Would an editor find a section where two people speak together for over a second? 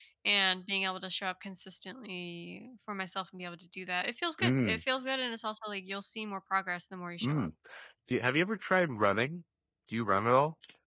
No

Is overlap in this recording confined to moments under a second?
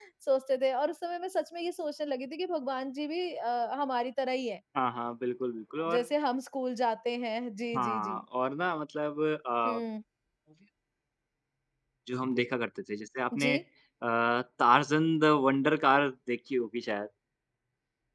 Yes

